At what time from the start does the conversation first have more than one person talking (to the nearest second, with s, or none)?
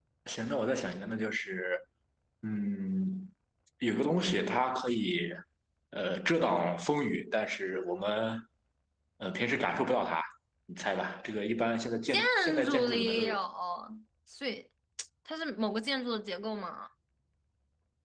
12 s